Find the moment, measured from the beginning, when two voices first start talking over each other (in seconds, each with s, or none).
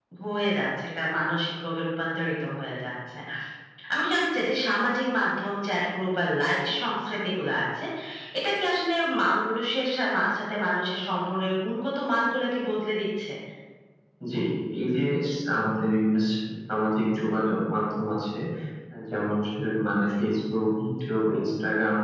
none